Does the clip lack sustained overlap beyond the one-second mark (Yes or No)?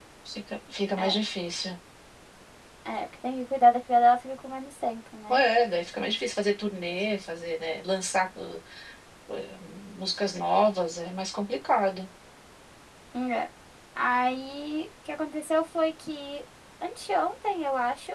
Yes